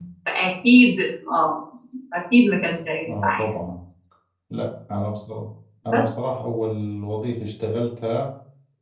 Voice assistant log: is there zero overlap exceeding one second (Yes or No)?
Yes